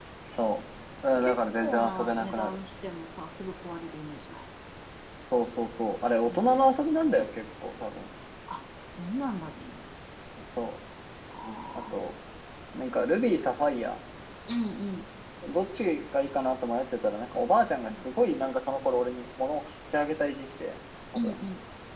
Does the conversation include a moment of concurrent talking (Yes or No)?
Yes